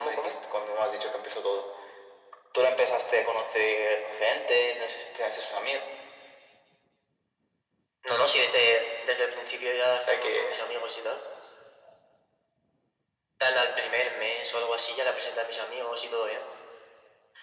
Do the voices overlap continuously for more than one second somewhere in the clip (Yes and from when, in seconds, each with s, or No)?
No